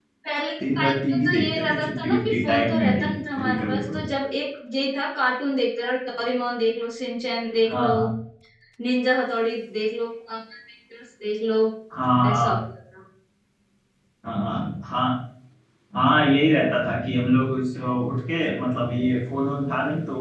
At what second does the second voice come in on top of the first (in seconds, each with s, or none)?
0.8 s